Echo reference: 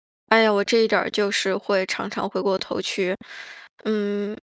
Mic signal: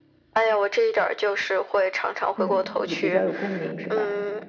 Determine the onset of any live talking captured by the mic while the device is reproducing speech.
2.4 s

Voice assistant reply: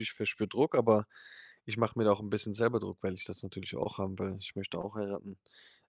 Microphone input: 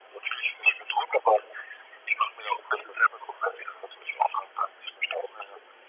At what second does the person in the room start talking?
none

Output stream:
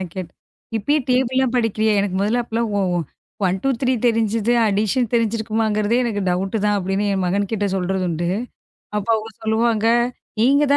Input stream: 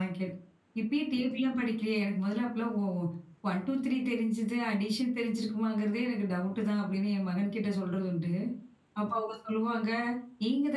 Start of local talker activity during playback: none

